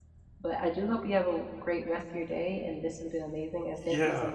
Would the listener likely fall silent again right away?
No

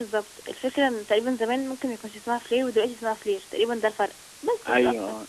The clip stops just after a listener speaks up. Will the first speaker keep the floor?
No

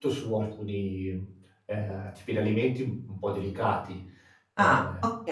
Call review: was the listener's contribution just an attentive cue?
No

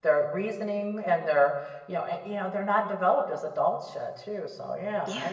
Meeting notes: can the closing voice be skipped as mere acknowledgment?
No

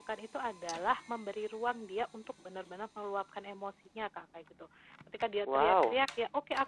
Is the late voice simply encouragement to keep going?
Yes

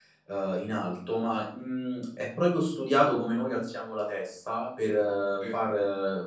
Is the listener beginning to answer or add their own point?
No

